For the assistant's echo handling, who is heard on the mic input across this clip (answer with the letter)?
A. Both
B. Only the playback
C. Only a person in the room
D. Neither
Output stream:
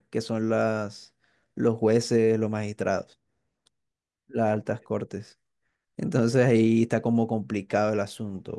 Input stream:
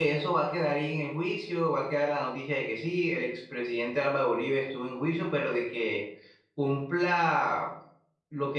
C